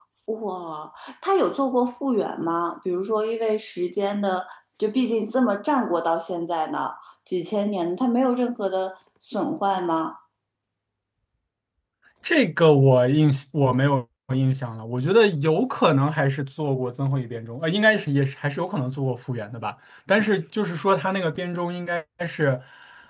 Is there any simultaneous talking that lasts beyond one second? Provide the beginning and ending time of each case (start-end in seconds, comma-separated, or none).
none